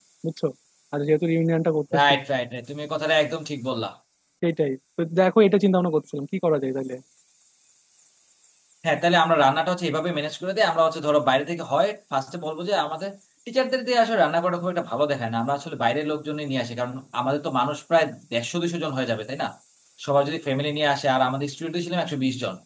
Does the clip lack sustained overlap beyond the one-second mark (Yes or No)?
Yes